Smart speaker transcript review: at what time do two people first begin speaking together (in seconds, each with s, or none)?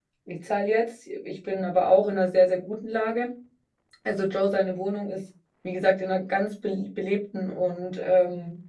none